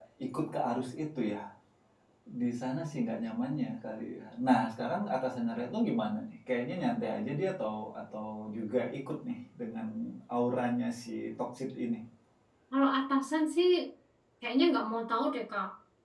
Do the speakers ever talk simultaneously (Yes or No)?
No